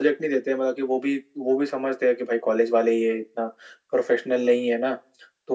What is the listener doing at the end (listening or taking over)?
listening